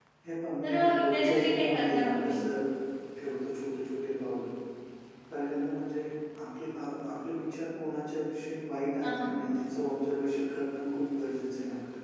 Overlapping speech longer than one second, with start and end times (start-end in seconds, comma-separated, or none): 0.6-2.4